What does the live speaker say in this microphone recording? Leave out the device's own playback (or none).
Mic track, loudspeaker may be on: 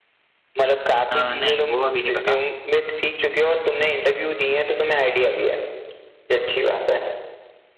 अ, नहीं वो अभी नहीं पता